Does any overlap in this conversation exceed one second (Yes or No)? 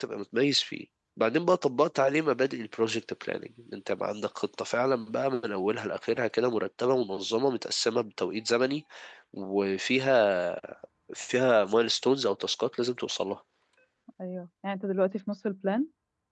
No